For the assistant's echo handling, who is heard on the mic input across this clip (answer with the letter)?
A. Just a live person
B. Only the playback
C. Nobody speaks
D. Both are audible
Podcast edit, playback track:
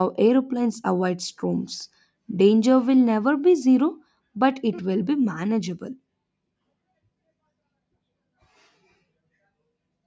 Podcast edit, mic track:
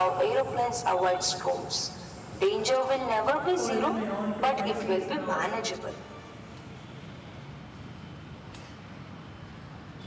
D